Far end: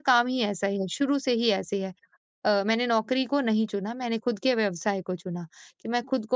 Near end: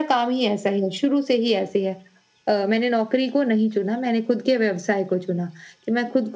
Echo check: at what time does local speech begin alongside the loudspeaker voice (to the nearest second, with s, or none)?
none